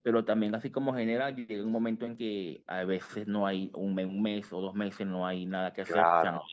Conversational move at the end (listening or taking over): taking over